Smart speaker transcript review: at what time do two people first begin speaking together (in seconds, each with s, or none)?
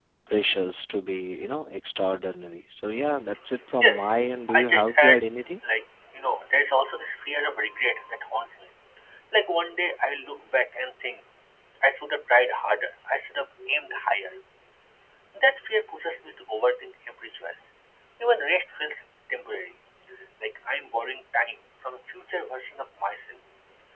3.7 s